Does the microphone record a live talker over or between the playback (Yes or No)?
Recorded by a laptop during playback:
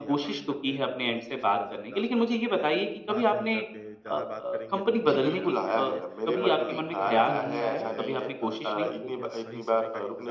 Yes